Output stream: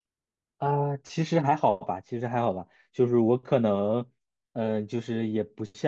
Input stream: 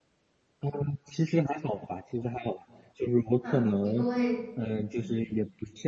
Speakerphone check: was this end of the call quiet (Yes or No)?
No